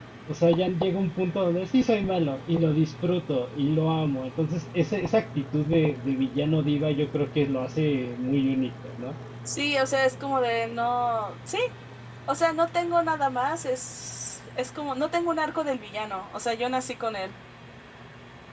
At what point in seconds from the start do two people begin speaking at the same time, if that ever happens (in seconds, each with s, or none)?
none